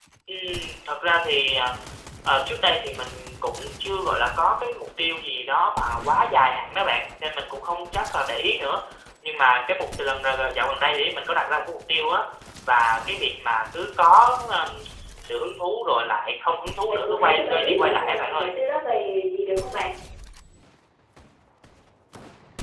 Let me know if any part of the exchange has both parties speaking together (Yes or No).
Yes